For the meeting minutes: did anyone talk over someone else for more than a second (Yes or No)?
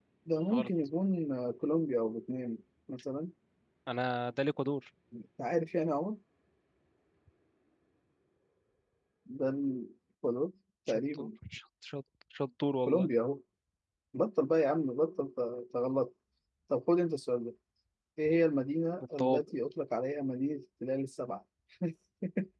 No